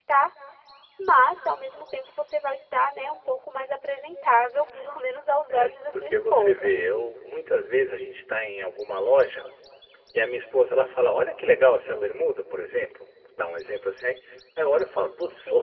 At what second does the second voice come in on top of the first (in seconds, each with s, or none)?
5.5 s